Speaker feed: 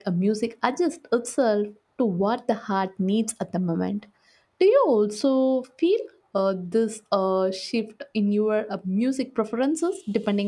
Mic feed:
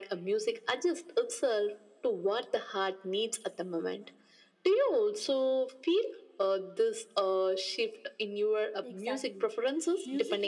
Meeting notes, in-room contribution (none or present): present